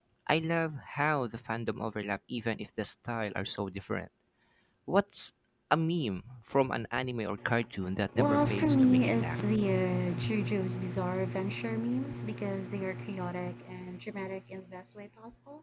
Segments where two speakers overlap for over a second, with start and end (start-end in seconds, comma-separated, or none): 8.2-9.4